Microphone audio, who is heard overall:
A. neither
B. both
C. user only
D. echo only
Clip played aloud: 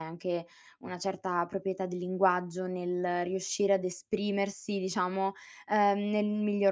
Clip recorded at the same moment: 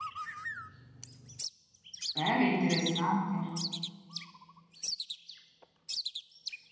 C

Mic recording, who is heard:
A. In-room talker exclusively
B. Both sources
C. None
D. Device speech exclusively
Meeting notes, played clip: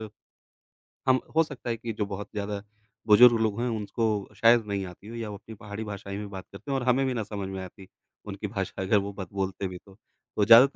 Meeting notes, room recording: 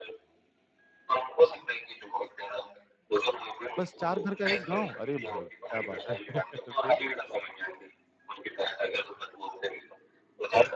B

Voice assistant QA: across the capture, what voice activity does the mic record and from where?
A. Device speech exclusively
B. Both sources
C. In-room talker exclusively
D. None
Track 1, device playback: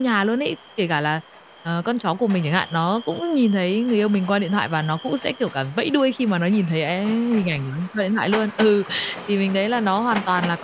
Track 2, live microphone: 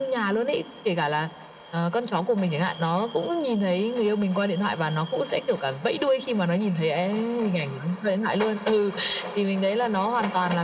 A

